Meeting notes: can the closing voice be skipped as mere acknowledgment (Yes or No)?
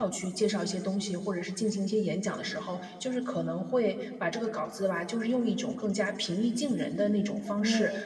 Yes